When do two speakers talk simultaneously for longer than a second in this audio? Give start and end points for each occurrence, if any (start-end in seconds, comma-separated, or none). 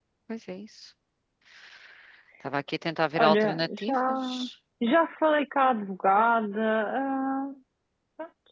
3.2-4.4